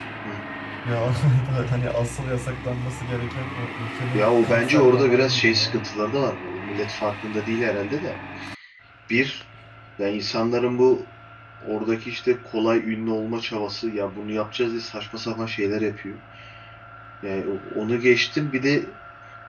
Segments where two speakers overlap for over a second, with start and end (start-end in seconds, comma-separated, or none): 4.1-5.8